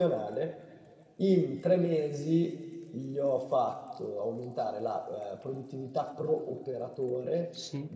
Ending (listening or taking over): listening